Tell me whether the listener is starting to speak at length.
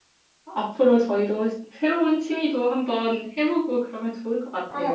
Yes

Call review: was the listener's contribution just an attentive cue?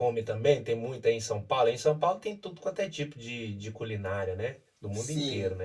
No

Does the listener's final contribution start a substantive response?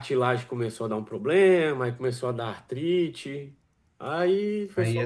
Yes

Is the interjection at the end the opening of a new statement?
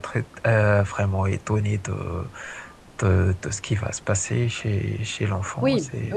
Yes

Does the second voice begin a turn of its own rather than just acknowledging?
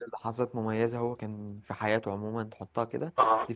No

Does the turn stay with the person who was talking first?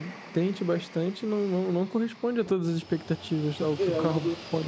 No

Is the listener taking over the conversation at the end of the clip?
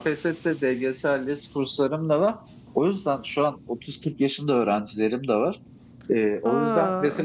No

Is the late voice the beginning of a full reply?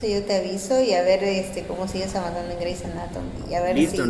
Yes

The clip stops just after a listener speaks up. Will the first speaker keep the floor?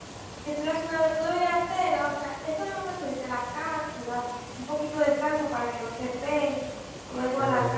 No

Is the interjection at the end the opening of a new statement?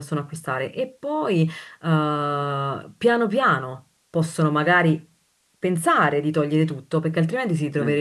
No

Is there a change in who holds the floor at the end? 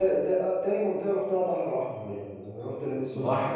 Yes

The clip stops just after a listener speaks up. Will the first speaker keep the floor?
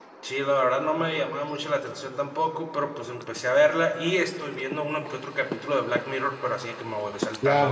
No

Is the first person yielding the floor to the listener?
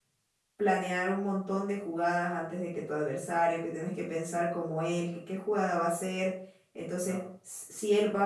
No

